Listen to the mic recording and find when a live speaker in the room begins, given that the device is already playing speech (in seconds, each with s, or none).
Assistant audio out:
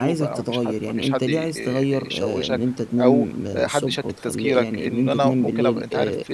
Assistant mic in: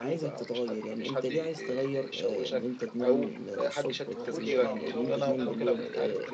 4.2 s